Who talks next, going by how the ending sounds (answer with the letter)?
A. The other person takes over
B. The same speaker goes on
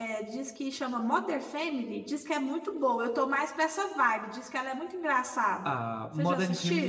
A